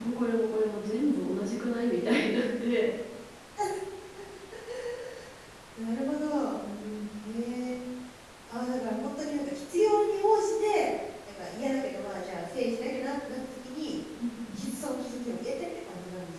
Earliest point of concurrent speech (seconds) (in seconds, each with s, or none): none